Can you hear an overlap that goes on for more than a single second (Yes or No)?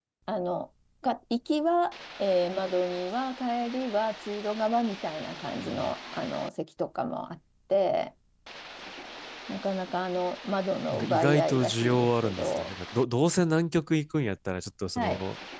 Yes